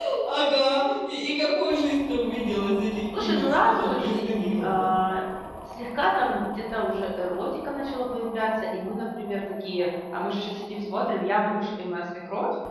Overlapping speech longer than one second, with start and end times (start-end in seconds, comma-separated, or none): 3.2-4.9